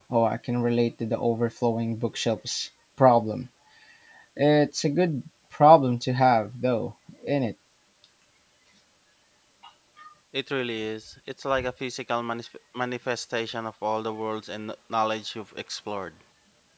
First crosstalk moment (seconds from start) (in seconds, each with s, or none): none